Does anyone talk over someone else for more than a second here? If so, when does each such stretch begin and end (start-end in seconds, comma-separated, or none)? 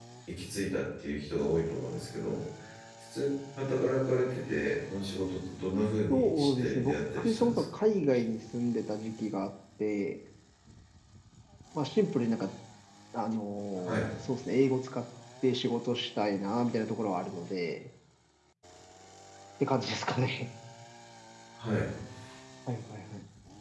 6.1-7.6